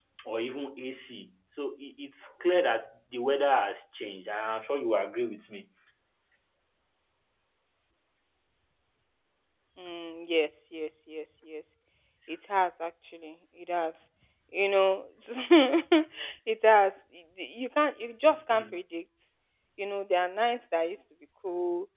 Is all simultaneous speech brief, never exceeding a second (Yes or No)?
Yes